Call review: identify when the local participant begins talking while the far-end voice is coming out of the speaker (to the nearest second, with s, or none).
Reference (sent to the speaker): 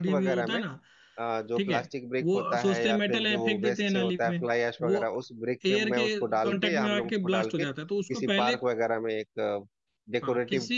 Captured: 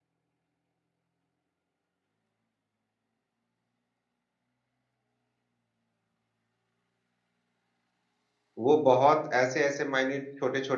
9 s